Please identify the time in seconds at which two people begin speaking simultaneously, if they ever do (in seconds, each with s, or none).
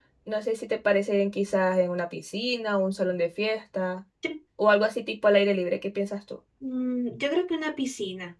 none